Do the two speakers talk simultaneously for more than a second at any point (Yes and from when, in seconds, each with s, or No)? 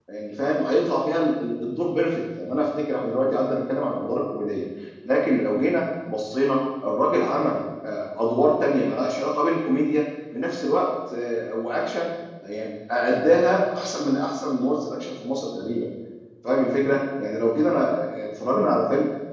No